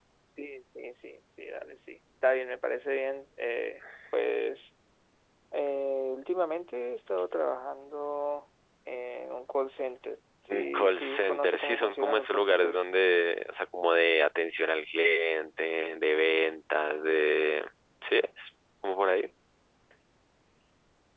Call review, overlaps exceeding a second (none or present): present